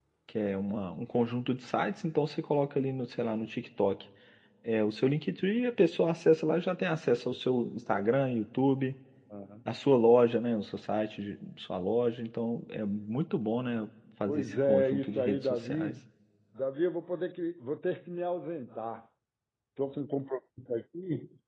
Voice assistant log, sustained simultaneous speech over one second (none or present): present